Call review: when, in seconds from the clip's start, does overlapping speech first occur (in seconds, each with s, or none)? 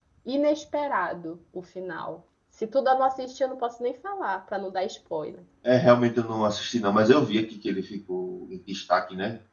none